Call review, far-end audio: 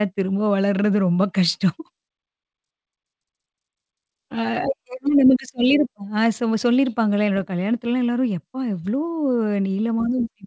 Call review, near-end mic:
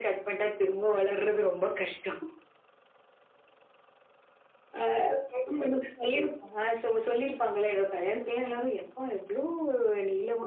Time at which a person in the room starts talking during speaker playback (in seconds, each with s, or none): none